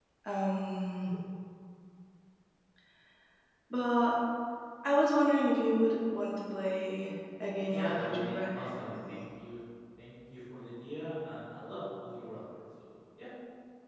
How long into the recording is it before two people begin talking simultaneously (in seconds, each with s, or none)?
7.7 s